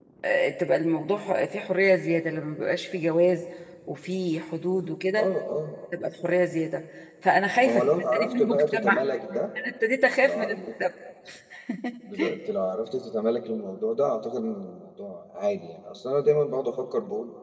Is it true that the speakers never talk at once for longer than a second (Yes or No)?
No